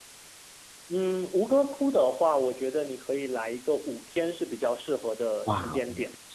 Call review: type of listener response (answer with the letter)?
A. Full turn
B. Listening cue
A